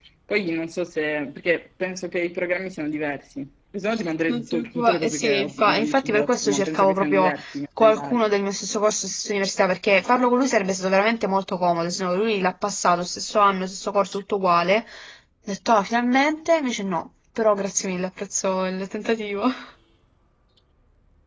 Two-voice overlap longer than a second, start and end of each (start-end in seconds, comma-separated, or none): 4.3-7.3